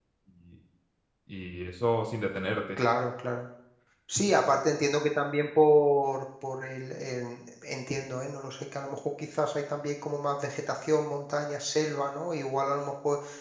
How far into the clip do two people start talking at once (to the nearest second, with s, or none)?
none